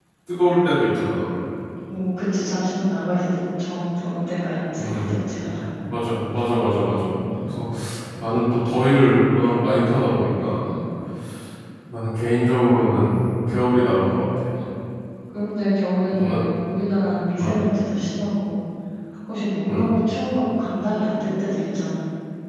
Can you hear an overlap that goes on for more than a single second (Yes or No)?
No